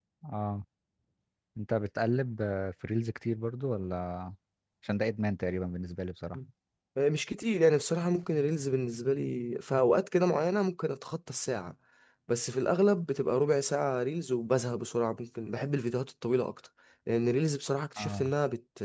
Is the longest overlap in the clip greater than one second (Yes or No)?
No